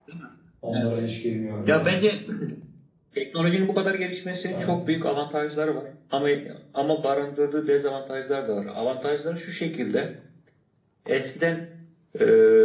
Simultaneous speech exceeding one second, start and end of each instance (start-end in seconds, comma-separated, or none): none